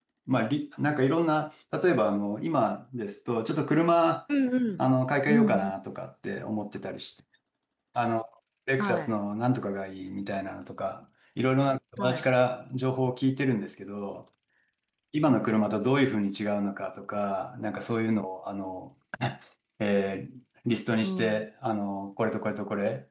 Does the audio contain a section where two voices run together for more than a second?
No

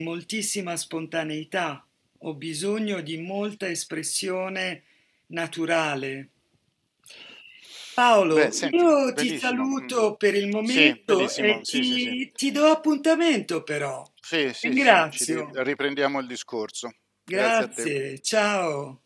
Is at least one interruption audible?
Yes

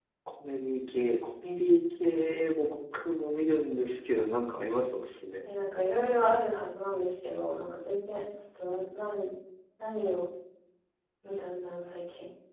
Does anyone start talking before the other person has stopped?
No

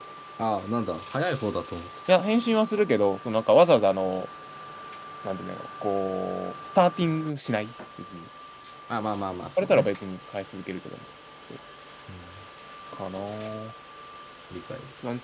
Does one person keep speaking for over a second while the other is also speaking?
No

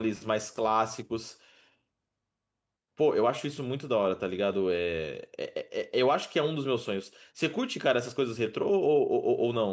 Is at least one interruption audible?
No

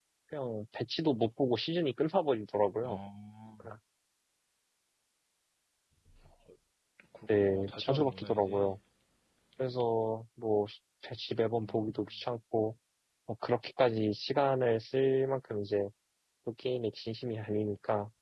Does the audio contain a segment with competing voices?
Yes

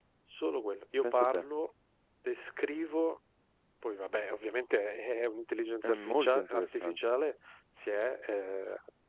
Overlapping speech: Yes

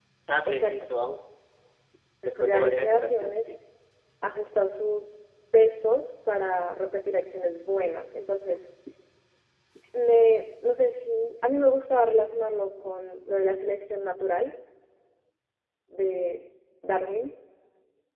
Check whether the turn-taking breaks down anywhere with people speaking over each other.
Yes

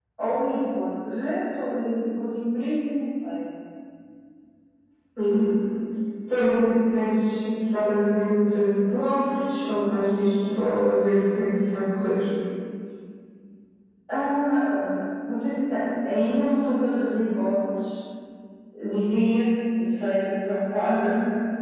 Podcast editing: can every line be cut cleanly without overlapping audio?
Yes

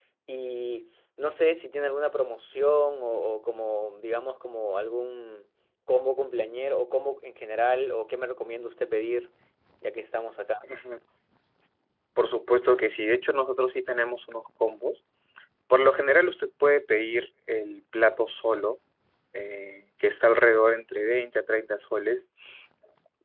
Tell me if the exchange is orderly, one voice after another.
Yes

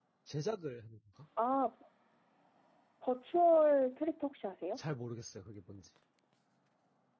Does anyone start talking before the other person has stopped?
No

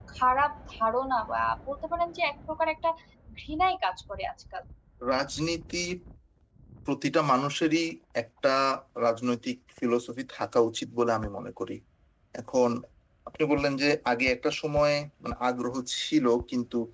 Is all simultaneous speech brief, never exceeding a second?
Yes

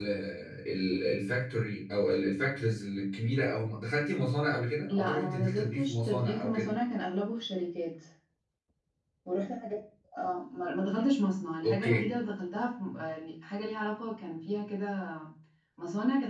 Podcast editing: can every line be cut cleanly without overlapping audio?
No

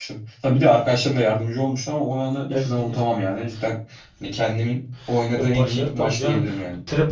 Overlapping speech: Yes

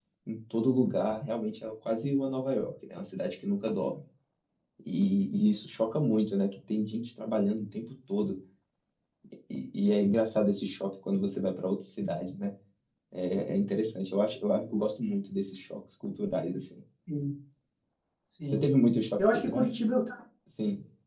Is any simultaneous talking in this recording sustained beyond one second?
No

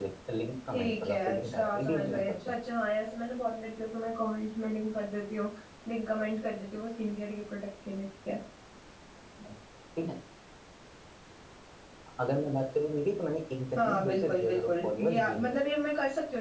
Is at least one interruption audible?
Yes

